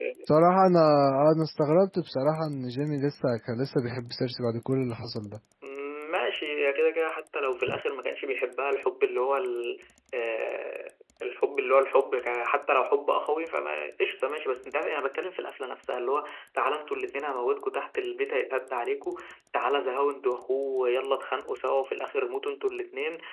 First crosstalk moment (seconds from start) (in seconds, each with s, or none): none